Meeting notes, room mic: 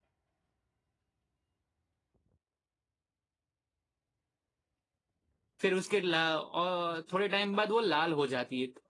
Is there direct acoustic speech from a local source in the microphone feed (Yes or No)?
Yes